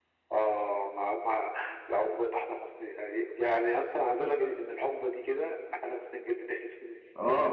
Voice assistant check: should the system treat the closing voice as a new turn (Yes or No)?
Yes